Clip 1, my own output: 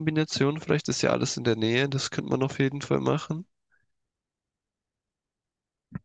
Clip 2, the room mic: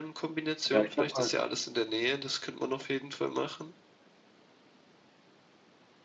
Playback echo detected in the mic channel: Yes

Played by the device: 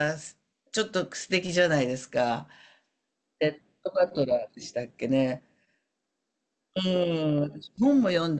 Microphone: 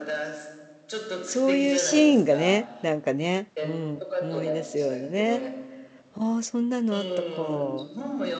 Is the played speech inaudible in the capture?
No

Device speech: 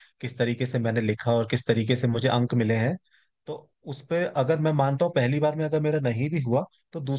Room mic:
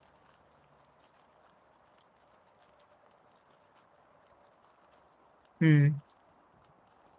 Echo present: No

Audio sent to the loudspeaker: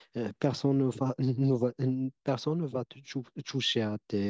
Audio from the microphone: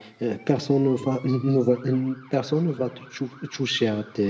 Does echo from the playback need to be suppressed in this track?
Yes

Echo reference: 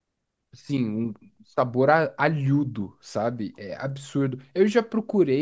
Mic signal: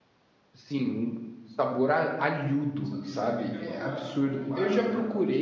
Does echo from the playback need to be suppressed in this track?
Yes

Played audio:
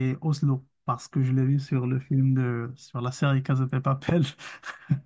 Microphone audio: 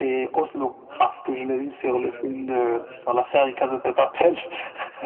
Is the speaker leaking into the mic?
Yes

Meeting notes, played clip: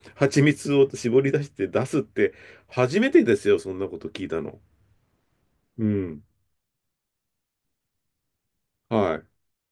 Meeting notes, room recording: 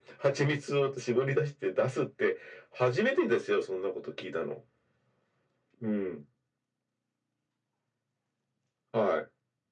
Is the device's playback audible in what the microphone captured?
Yes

